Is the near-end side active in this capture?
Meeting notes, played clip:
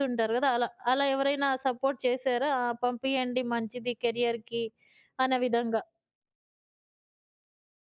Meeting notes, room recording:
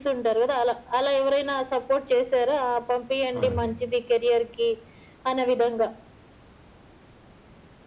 Yes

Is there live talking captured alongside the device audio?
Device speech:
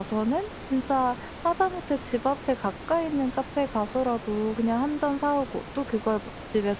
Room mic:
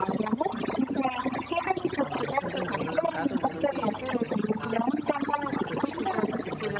Yes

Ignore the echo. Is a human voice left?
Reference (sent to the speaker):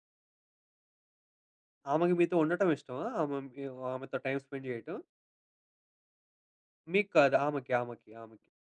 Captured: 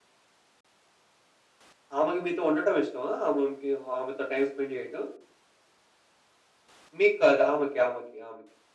No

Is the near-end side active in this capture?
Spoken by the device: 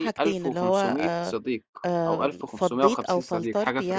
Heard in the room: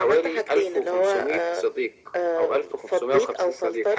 No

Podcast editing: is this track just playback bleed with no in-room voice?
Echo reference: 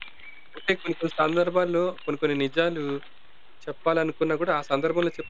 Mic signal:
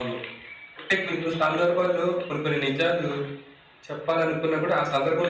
Yes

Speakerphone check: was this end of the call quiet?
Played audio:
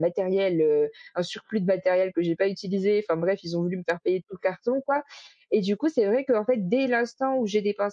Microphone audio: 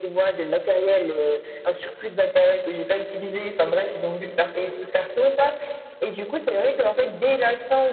Yes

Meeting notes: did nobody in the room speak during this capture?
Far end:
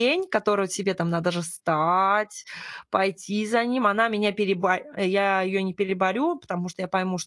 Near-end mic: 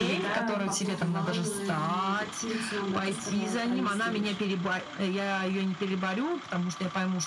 No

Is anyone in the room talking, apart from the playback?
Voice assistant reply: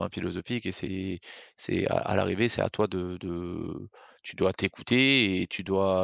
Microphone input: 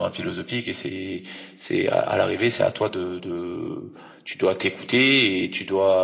No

